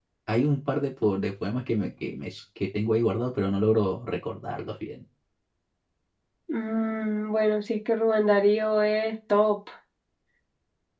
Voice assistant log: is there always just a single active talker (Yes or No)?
Yes